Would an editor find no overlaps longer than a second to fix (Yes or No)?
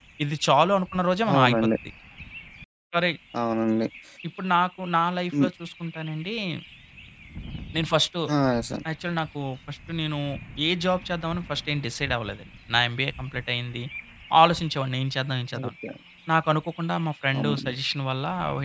Yes